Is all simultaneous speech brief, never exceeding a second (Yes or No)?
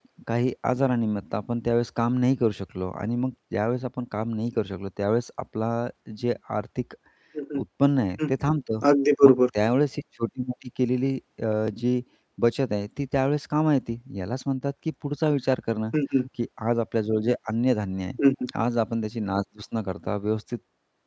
Yes